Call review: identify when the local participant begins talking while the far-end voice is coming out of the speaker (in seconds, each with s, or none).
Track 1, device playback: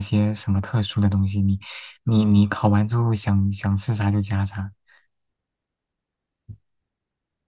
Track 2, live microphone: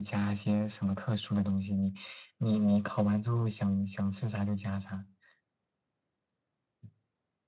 none